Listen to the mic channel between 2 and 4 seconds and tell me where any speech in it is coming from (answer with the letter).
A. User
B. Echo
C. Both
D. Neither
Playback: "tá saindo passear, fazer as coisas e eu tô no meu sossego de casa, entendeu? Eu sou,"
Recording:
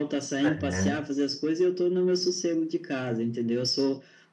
B